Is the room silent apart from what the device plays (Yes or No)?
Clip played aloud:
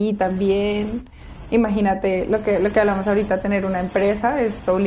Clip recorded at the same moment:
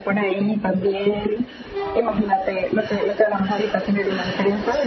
Yes